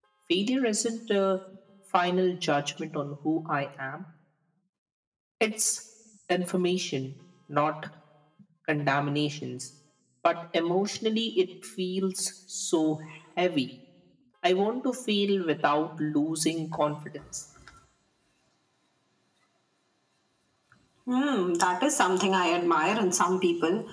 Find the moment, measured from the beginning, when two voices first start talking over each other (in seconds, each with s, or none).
none